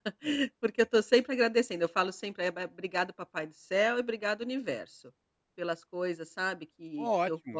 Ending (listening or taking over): taking over